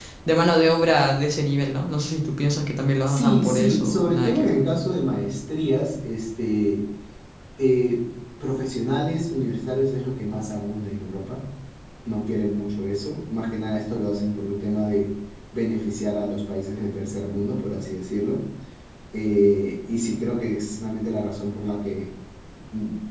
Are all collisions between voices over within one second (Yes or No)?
No